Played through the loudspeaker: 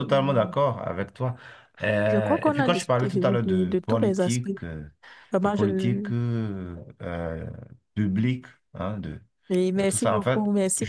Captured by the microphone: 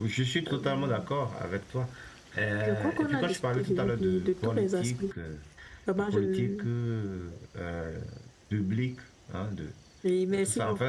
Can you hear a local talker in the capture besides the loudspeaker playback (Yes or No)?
No